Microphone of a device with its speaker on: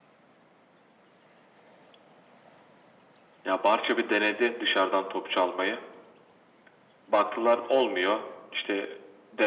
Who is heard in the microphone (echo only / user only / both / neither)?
echo only